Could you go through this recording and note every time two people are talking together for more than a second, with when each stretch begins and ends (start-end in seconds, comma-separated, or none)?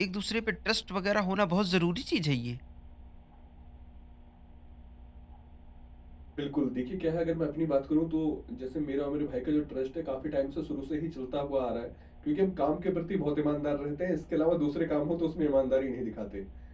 none